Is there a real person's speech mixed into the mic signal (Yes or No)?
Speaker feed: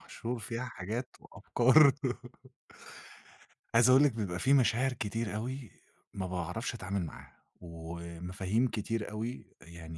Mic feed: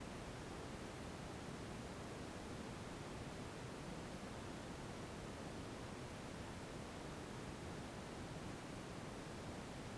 No